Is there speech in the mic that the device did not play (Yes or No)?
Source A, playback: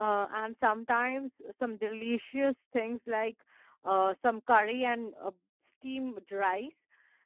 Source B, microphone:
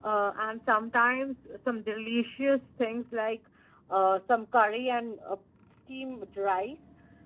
No